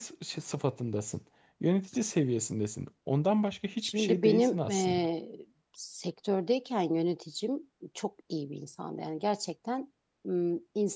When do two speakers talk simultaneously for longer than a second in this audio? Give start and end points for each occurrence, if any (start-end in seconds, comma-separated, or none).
3.8-5.1